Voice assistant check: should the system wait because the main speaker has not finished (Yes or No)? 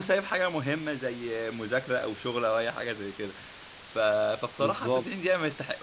Yes